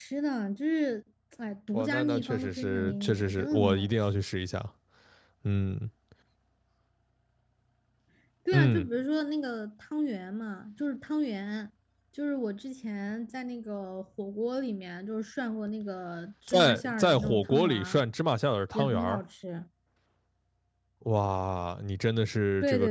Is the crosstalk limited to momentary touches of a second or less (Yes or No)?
No